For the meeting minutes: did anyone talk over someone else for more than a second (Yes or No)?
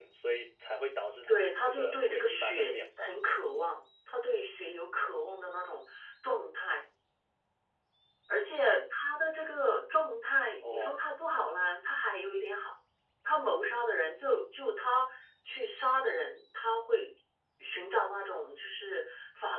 Yes